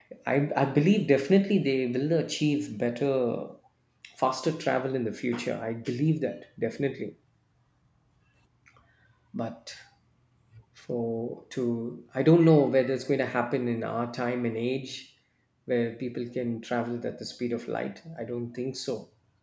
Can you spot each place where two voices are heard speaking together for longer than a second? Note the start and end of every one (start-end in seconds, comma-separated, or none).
none